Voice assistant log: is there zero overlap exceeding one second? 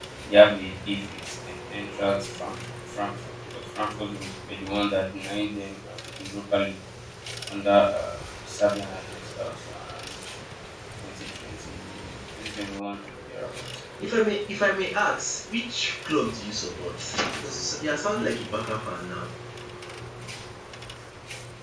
Yes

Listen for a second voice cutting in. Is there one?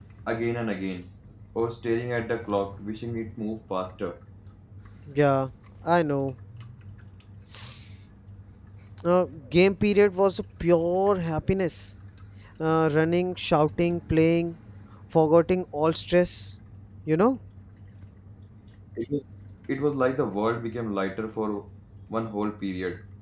No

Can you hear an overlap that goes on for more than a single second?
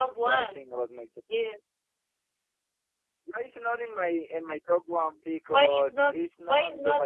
Yes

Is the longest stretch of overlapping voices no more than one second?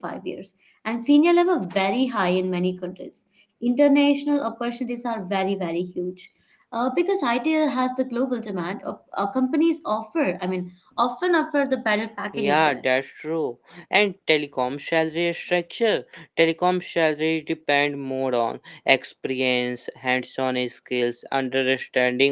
Yes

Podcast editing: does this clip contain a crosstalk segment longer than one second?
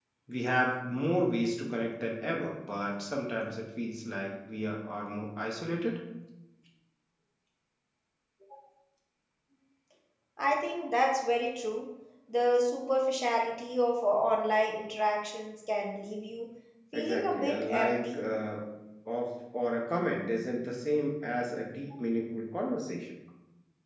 Yes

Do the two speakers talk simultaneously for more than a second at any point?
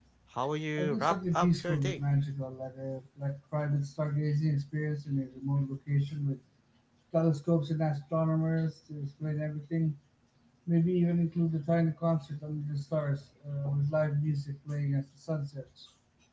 Yes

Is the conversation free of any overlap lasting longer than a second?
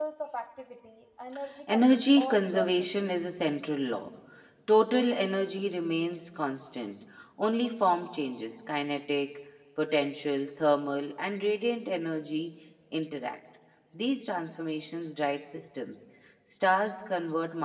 No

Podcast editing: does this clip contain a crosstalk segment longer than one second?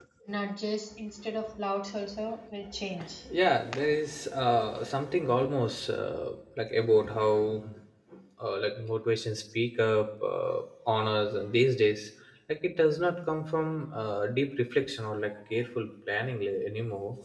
No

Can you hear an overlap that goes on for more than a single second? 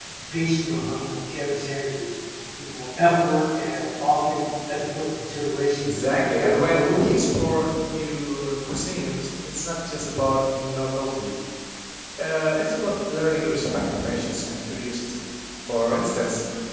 Yes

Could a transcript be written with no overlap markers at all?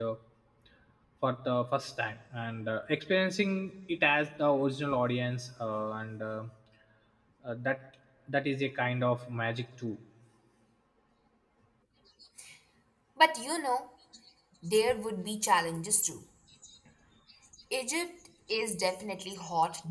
Yes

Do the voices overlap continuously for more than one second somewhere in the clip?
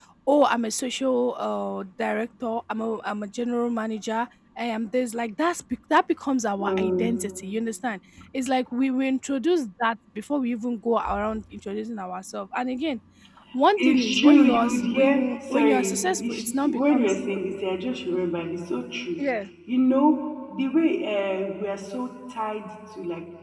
Yes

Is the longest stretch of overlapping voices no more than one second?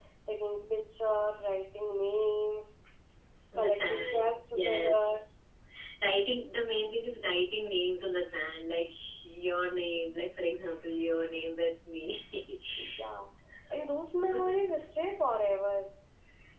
No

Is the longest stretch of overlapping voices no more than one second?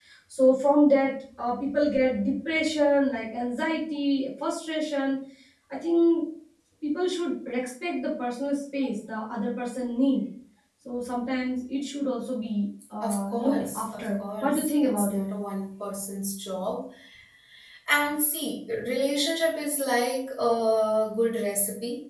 No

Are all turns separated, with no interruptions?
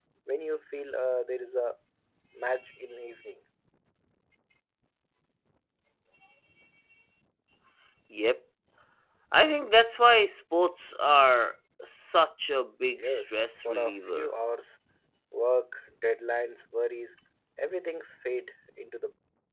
No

